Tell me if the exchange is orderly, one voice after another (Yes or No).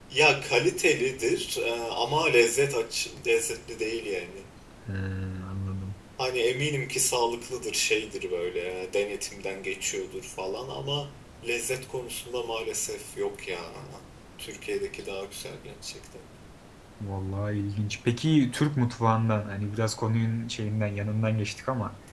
Yes